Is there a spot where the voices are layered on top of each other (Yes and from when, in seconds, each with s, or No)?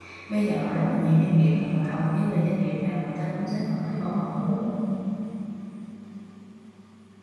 No